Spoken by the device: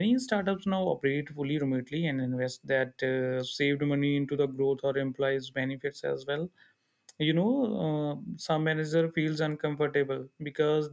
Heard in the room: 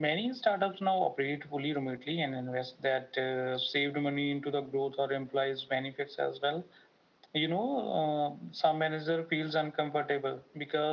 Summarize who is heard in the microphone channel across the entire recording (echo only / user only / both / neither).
echo only